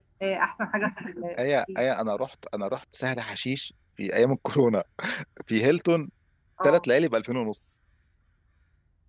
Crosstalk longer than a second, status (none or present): none